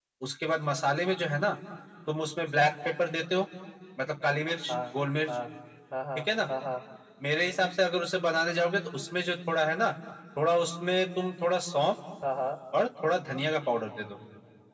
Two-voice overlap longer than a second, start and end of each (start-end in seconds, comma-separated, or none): none